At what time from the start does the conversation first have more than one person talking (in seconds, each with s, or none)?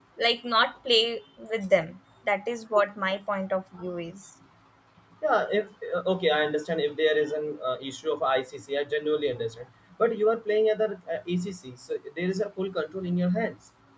none